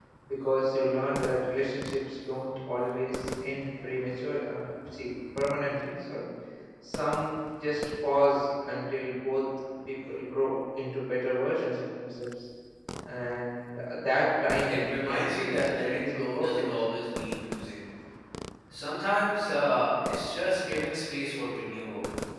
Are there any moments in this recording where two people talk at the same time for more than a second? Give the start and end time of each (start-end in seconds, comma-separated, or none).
14.7-16.6